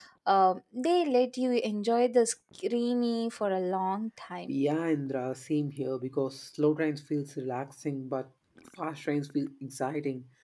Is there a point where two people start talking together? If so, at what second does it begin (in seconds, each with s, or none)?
none